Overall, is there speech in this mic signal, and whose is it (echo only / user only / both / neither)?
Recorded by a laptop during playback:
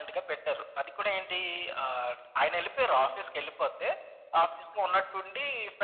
echo only